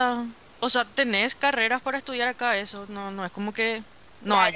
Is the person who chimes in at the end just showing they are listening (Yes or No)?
No